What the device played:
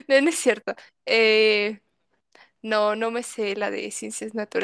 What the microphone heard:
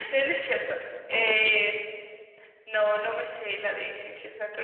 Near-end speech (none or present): present